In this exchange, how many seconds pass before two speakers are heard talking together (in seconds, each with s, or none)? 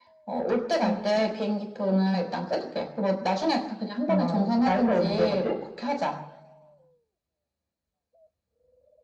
4.1 s